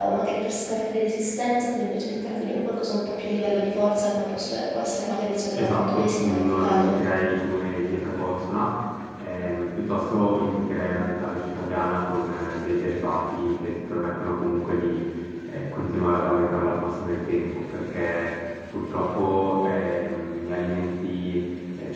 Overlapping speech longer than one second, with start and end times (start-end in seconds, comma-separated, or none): 5.6-7.0